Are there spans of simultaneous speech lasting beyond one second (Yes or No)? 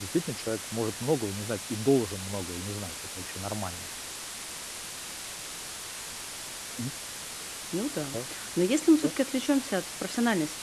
No